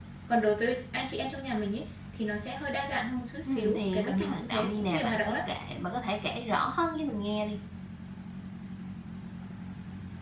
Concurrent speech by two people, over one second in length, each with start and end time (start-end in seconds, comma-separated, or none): 3.5-5.4